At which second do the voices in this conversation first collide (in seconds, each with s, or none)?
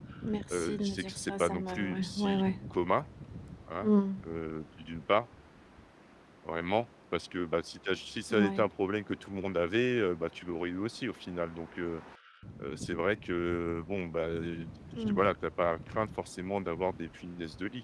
0.5 s